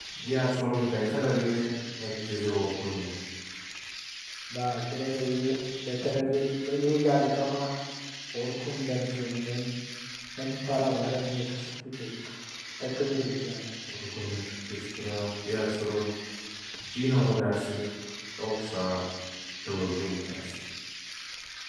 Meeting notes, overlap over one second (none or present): none